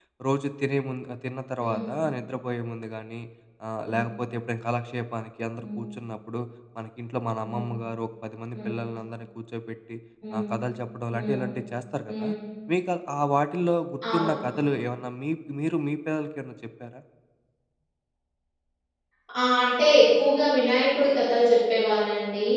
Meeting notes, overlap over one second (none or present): none